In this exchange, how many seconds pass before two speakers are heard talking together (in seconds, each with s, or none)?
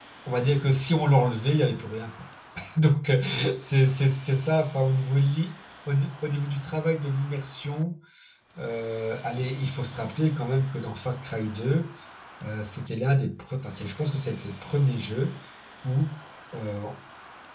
none